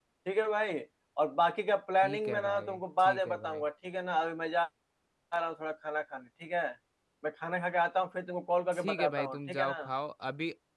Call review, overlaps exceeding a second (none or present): present